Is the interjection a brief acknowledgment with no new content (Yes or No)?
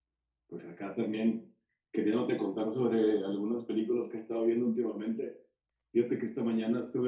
Yes